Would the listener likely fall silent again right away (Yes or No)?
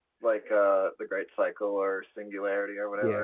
No